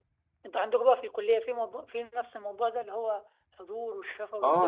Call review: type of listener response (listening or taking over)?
taking over